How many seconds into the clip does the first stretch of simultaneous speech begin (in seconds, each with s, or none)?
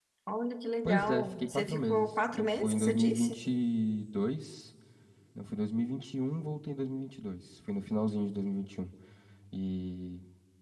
0.8 s